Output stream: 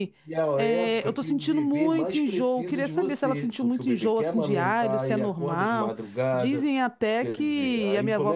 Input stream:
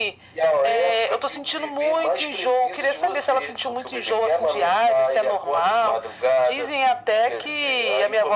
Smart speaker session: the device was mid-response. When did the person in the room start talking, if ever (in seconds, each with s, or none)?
none